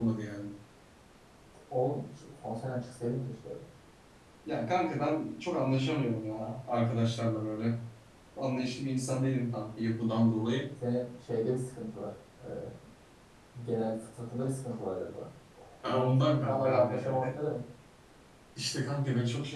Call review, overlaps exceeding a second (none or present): present